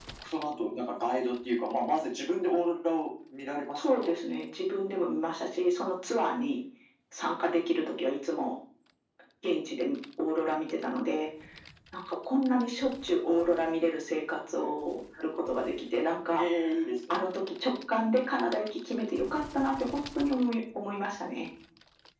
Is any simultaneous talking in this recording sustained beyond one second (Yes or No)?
No